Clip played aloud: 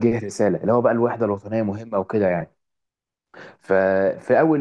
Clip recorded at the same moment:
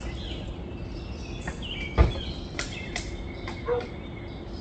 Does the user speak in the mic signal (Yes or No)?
No